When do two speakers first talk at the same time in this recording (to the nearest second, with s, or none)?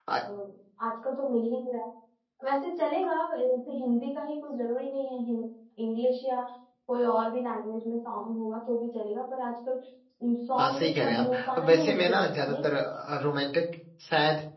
11 s